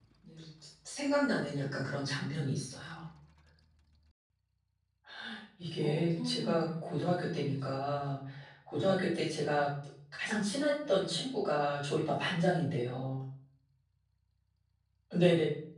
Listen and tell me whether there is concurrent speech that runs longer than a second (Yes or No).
Yes